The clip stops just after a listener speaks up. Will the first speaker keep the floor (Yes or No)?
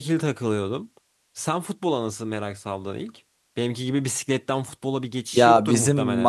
No